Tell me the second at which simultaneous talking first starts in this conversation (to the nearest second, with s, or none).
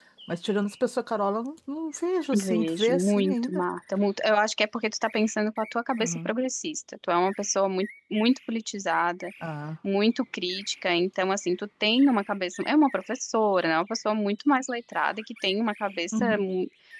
2 s